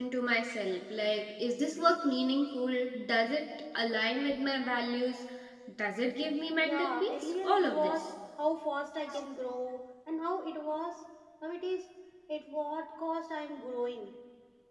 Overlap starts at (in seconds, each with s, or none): 6.6 s